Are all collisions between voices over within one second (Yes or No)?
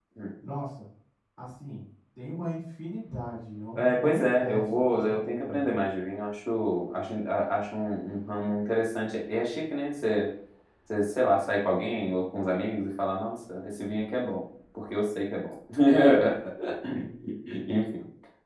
No